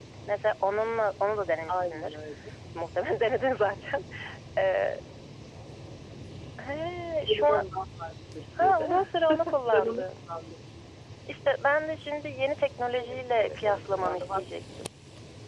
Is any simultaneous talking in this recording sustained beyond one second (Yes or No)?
Yes